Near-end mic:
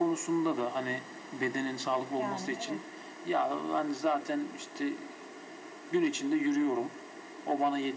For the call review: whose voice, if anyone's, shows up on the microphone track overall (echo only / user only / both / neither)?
both